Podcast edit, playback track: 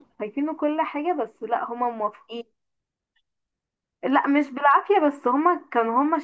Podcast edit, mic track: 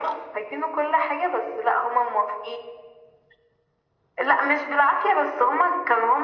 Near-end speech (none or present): none